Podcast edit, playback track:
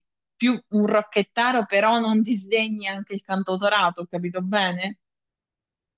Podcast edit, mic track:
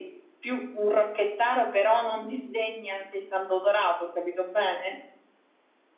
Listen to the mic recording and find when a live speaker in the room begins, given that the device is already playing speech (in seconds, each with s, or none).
none